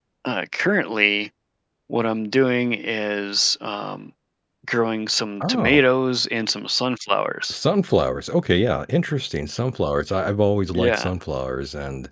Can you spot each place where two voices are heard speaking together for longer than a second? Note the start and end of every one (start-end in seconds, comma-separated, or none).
none